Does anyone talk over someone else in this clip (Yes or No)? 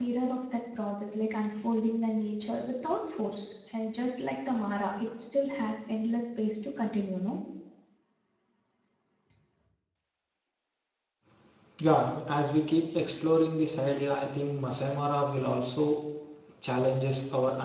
No